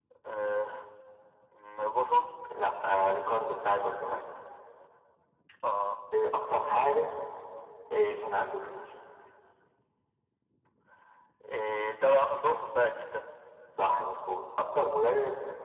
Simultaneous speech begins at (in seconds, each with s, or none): none